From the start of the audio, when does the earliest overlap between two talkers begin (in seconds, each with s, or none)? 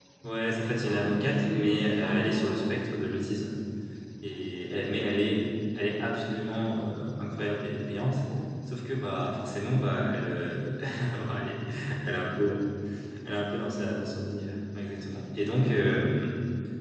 0.6 s